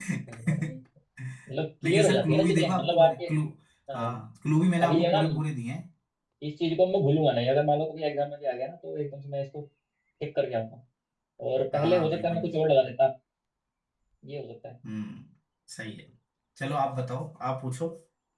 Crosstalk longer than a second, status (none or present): present